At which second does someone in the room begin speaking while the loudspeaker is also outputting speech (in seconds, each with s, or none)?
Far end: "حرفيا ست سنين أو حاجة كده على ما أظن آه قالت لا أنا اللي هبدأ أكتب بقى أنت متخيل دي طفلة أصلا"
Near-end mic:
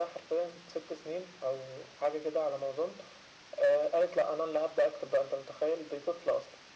none